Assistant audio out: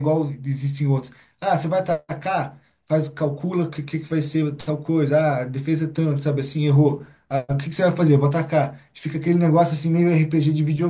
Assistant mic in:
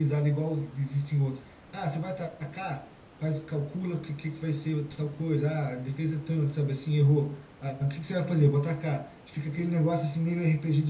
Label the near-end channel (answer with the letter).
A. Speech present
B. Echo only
B